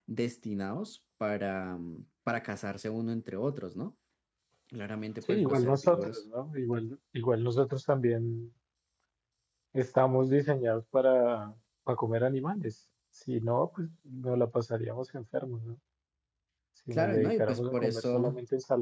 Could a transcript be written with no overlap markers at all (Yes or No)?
No